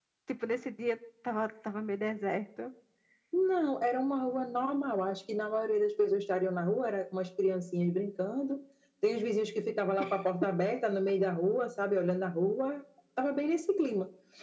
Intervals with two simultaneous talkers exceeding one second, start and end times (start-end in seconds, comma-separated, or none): none